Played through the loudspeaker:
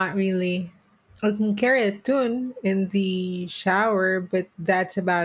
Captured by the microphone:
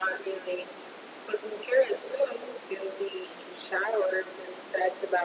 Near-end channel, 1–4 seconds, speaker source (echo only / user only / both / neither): echo only